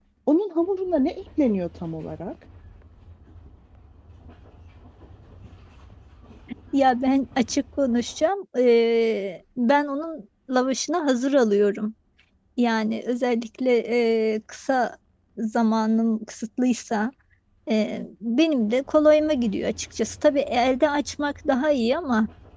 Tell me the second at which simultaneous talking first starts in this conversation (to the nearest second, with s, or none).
none